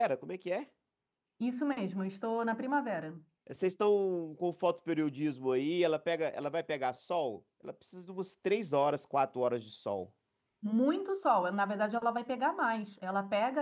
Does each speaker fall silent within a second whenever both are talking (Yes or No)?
Yes